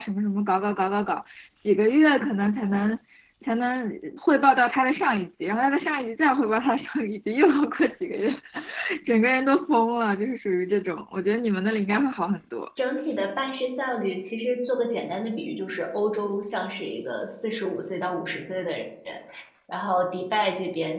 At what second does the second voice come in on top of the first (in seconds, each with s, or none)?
none